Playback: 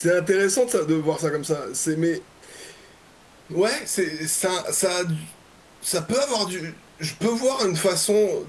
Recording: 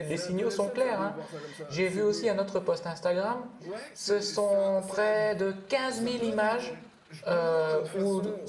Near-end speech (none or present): present